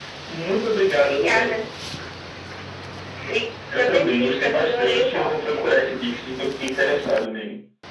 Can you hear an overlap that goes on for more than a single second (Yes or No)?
Yes